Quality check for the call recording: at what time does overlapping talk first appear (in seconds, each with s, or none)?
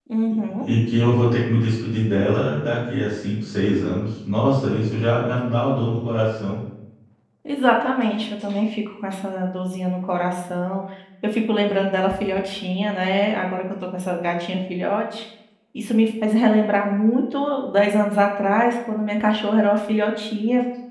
none